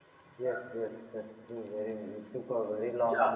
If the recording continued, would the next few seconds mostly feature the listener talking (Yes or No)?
No